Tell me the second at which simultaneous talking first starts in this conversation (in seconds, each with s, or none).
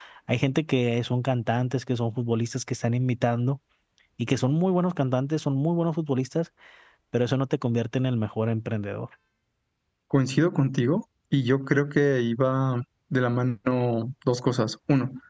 none